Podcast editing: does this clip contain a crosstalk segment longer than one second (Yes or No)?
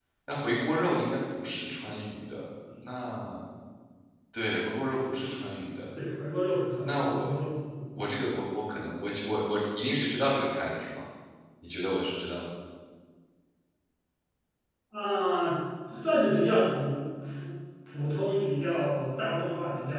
No